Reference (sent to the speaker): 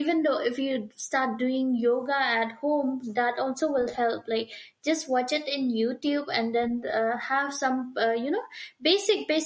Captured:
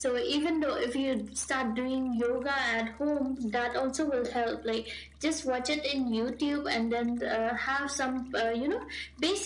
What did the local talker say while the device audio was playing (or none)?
none